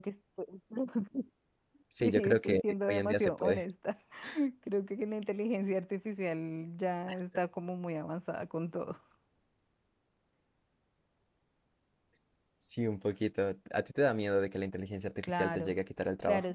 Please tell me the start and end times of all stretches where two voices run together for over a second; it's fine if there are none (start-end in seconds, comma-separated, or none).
2.0-3.6